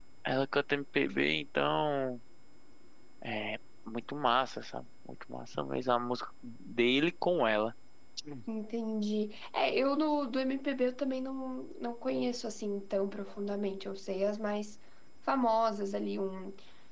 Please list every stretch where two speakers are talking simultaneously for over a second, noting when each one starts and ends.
none

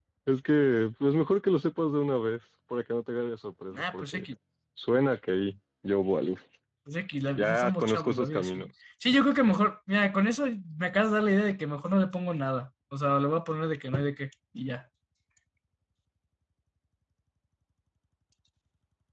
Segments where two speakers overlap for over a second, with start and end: 7.3-8.7

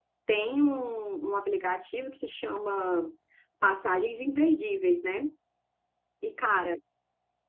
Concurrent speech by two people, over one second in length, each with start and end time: none

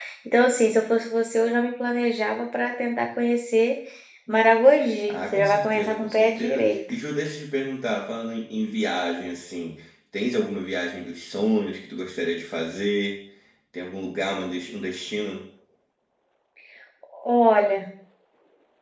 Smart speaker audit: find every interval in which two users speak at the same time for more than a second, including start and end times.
5.1-6.8

